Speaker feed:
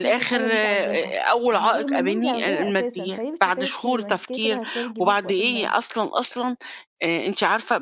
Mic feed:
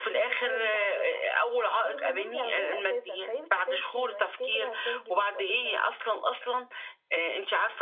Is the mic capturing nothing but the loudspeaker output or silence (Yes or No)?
Yes